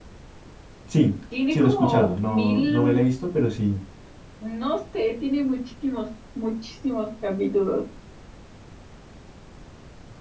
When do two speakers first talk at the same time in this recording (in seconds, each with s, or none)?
1.5 s